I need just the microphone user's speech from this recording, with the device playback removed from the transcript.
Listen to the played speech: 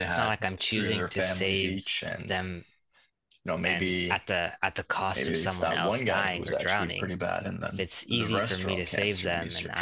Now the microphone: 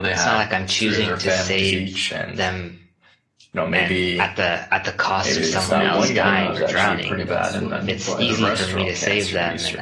Like maybe you're not that great at swimming, but

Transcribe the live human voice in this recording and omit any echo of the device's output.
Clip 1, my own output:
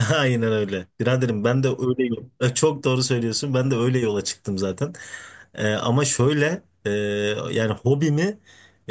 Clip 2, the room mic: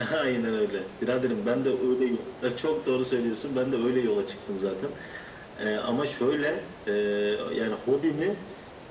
none

